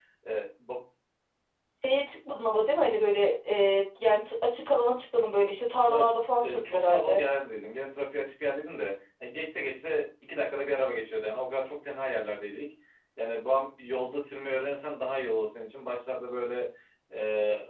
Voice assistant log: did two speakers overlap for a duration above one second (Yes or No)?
Yes